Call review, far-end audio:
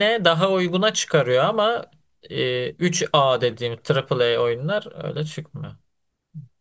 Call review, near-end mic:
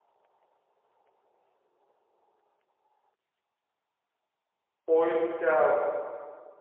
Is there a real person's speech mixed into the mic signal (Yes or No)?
Yes